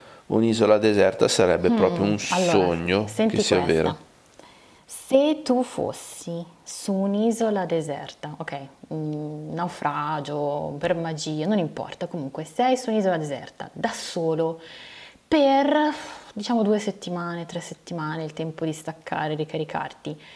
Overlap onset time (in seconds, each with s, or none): 1.7 s